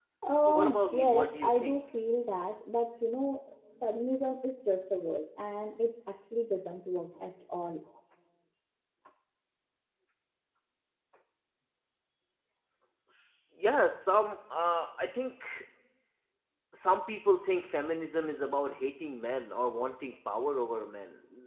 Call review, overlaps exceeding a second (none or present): present